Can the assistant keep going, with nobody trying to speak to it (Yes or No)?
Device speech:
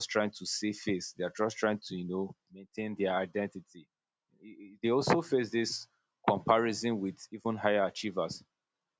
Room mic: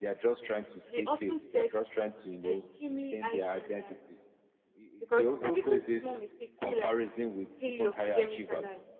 No